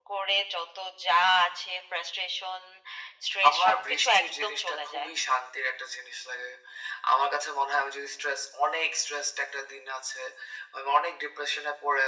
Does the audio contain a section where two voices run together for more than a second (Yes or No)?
Yes